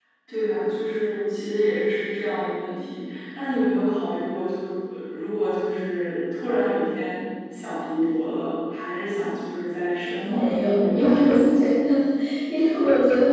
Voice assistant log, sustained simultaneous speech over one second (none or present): present